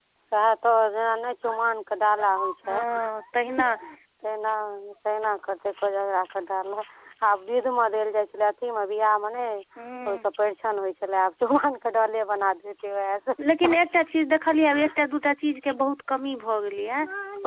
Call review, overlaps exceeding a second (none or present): none